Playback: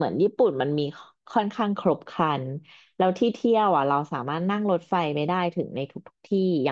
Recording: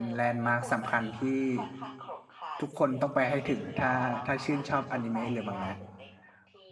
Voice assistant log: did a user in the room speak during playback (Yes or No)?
Yes